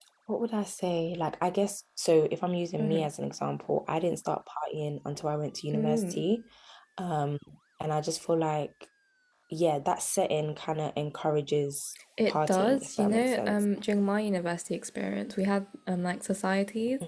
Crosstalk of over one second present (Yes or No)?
Yes